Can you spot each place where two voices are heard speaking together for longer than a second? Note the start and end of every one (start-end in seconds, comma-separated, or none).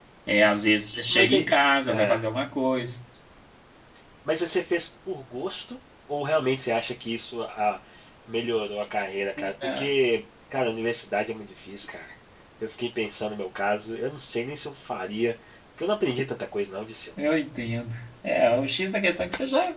none